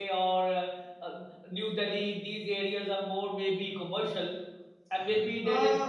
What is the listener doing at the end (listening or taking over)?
listening